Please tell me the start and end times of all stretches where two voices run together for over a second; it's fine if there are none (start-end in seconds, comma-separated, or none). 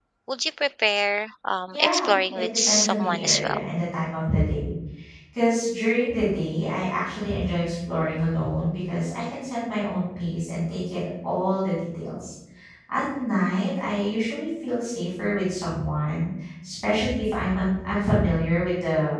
1.7-3.6